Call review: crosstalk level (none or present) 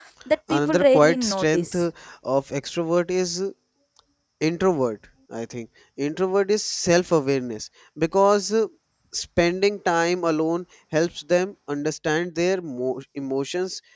present